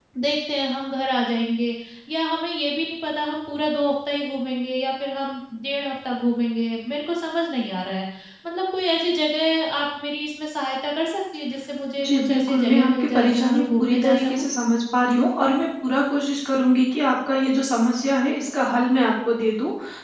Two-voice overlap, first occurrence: 12 s

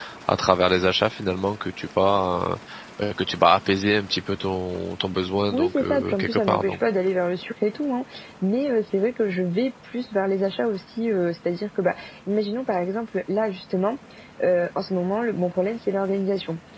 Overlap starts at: 6 s

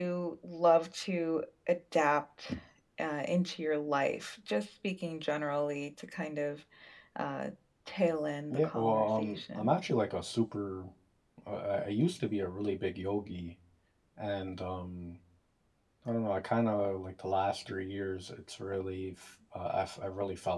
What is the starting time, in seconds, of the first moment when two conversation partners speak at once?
9 s

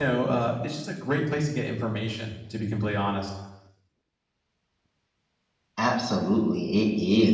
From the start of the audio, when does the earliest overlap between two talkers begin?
none

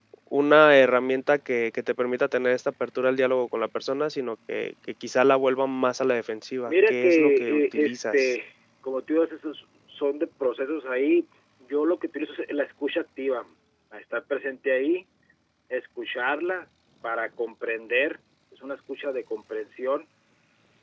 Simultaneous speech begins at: 7 s

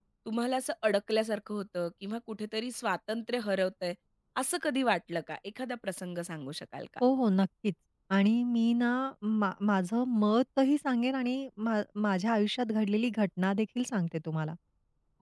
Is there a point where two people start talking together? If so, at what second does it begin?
none

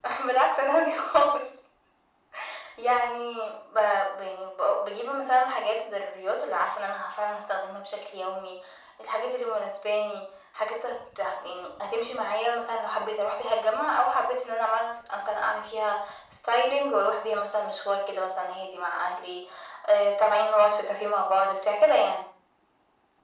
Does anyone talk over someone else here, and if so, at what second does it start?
none

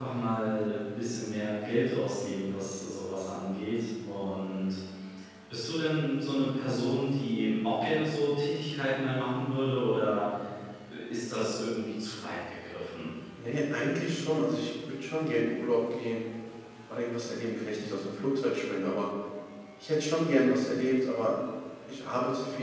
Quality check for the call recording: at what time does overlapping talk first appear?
none

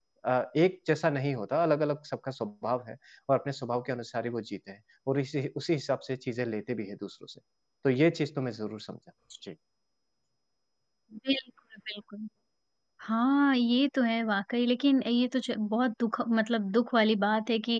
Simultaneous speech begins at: none

